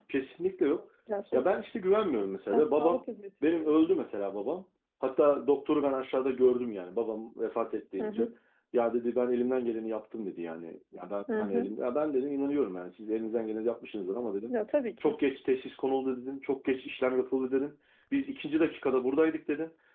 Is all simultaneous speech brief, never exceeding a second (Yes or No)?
Yes